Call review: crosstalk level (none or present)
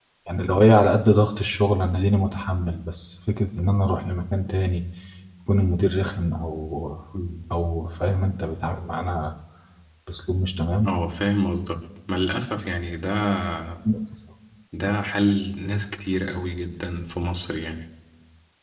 none